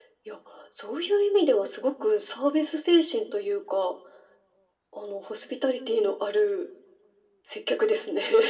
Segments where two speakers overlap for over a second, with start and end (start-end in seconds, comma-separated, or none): none